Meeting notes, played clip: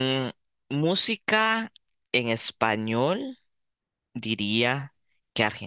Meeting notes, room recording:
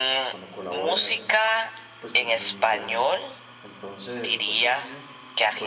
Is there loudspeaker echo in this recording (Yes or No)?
Yes